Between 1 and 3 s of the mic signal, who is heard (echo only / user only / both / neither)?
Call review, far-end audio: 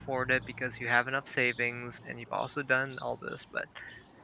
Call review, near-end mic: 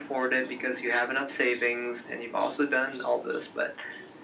echo only